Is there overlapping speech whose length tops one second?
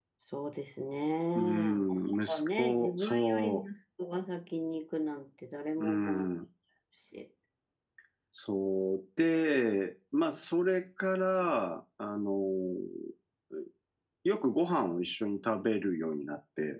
Yes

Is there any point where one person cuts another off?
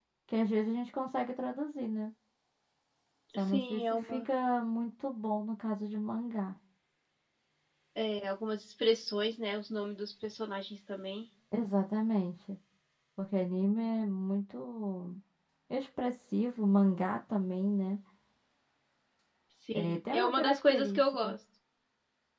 Yes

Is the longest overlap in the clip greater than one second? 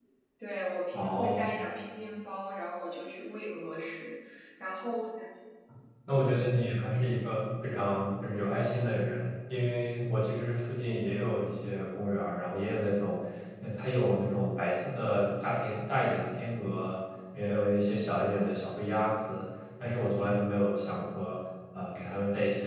No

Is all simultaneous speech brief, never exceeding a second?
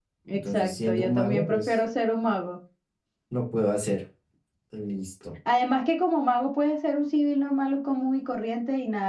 No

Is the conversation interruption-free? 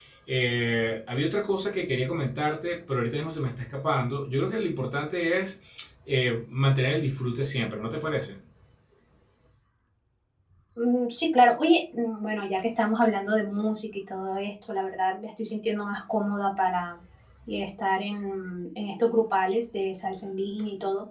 Yes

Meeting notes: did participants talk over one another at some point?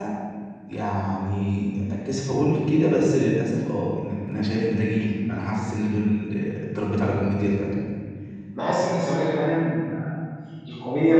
No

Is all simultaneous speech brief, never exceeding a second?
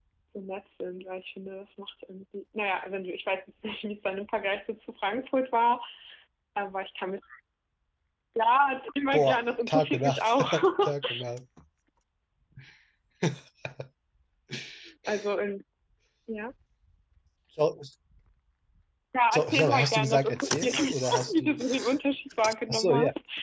No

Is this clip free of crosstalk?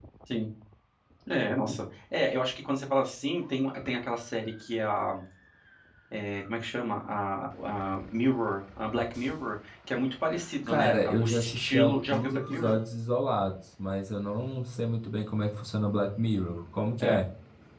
No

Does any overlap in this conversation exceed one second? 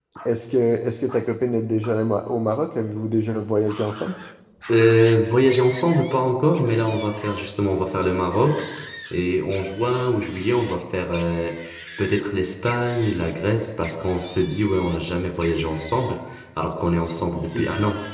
No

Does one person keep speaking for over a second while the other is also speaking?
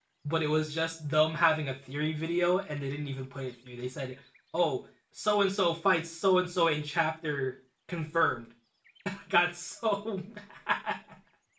No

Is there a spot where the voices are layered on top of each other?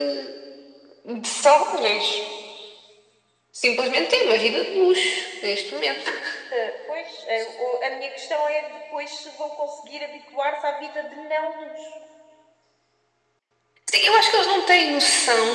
No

